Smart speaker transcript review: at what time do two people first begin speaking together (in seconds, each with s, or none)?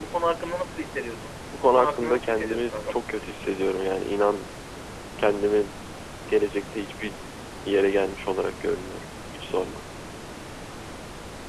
1.5 s